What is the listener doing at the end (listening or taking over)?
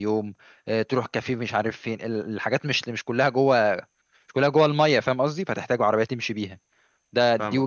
listening